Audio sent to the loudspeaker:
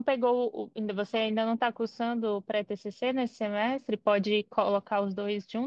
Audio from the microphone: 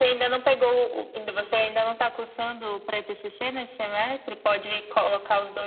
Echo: present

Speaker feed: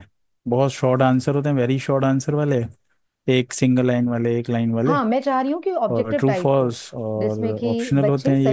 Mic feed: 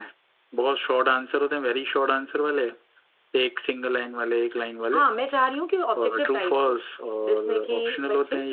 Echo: present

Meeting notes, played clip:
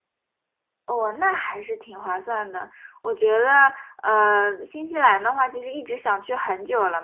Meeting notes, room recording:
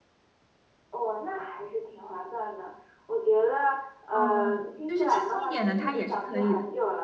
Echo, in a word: present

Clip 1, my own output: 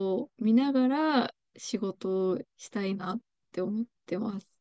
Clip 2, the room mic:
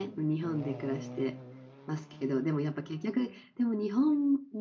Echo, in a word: none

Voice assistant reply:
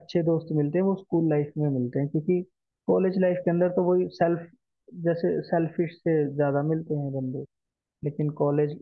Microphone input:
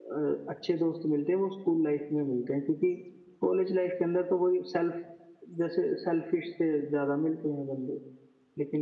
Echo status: present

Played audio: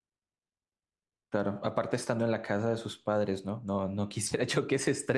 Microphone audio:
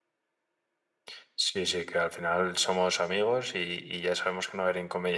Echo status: none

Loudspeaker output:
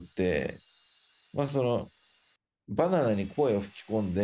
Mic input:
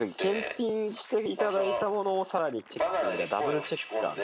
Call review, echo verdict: present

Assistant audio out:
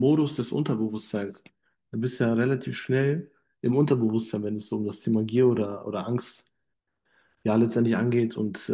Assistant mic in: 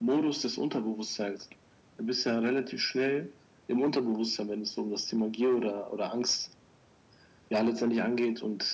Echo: present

